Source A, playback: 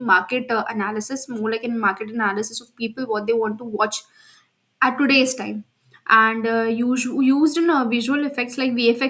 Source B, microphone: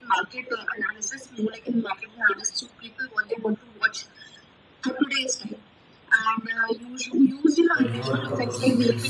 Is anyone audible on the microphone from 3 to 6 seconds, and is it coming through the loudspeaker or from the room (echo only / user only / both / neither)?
echo only